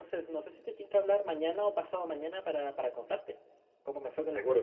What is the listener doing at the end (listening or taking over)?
taking over